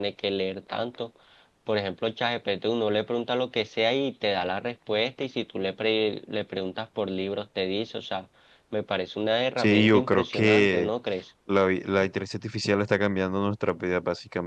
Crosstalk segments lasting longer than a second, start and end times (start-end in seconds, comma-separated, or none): 9.6-10.9